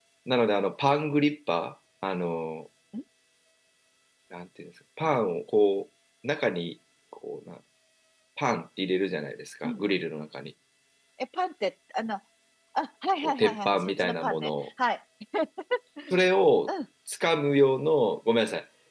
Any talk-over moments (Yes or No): Yes